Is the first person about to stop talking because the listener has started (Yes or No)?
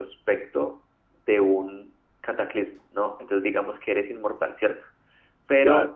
No